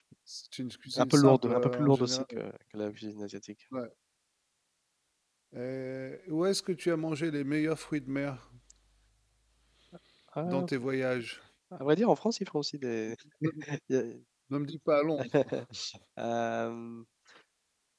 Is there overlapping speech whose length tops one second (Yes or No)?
Yes